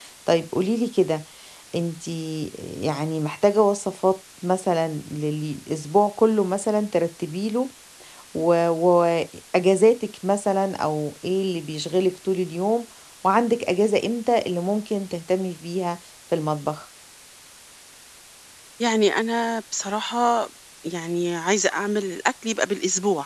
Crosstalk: none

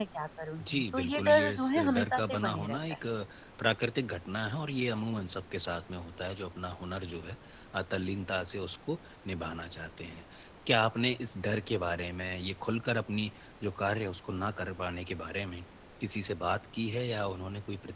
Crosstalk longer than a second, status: present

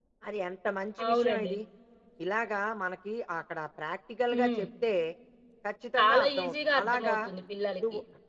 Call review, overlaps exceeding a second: present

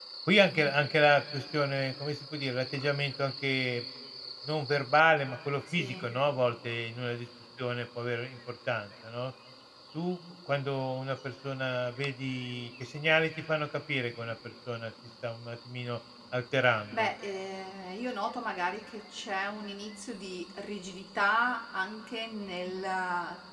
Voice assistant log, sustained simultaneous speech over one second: none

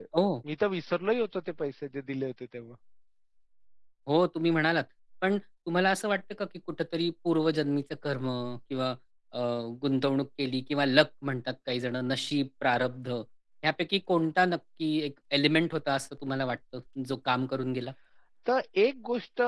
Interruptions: none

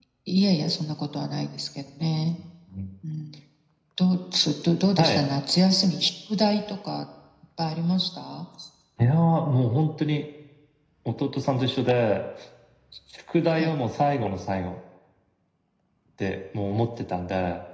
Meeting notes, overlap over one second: none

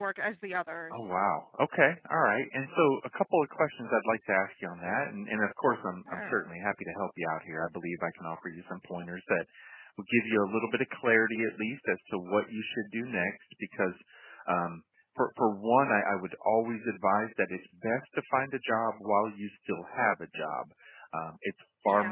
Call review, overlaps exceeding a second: none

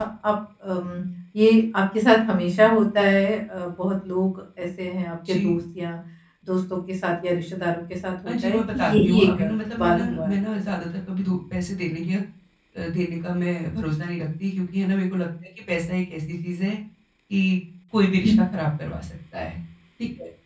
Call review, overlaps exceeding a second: present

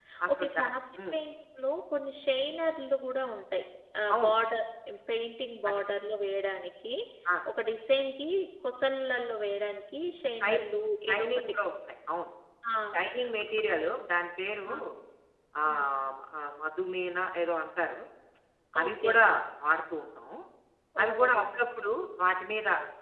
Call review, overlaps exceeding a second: none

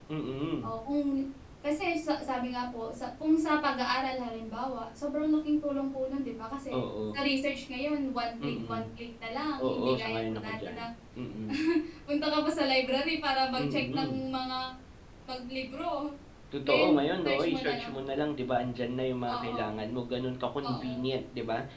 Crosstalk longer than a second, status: present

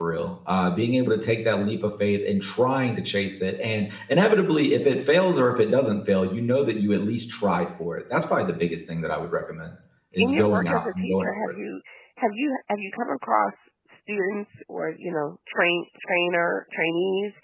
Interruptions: present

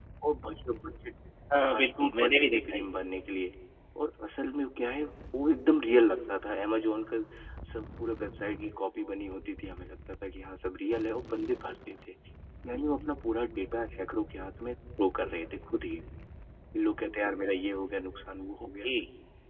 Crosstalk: present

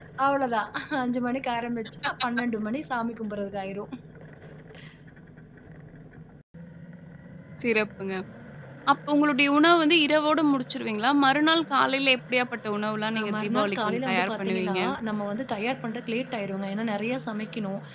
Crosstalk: present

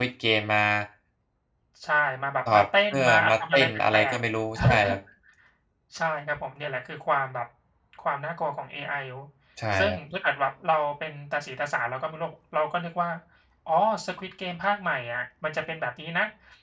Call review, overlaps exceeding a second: present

